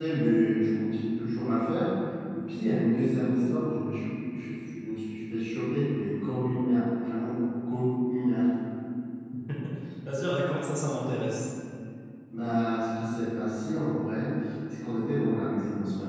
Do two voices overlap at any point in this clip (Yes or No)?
No